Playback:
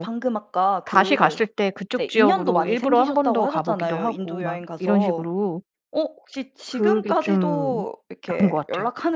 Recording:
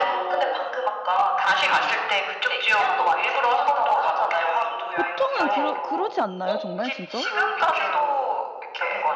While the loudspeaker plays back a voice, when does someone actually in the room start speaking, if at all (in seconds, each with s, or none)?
5.0 s